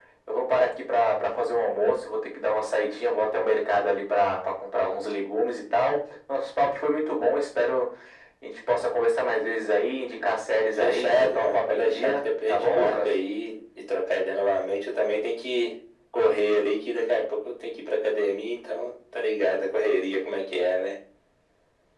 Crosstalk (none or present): present